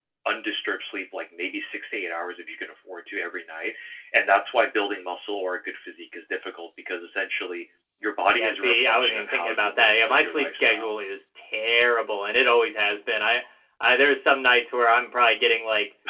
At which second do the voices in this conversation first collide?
8.3 s

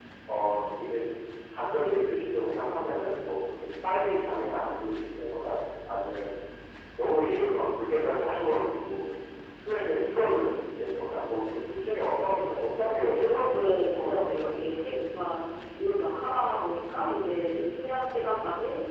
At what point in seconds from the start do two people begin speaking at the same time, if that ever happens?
12.9 s

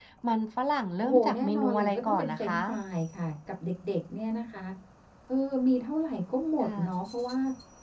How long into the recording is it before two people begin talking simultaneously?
1.0 s

